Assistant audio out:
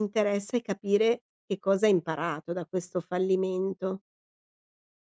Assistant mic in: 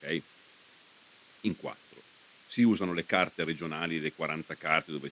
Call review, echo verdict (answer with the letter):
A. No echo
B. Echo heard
A